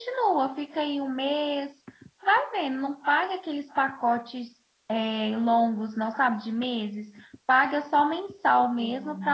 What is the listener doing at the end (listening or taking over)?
listening